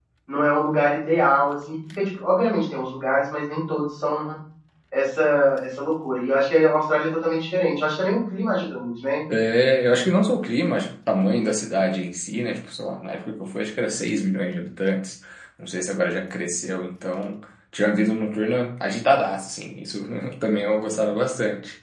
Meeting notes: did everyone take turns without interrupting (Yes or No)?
Yes